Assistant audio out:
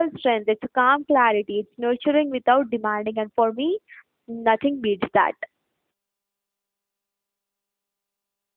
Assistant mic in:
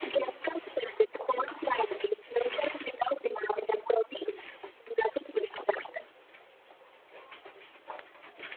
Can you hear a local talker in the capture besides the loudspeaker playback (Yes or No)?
No